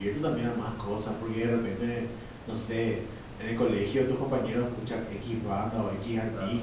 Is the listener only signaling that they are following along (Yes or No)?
Yes